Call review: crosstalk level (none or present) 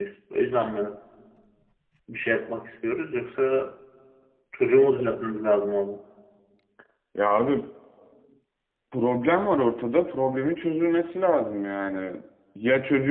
none